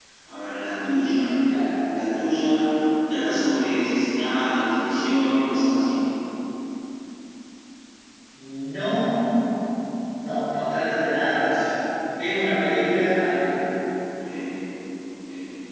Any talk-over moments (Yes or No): No